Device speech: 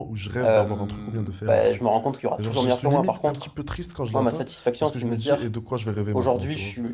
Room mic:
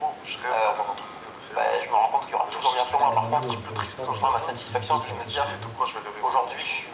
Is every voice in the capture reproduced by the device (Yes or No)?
No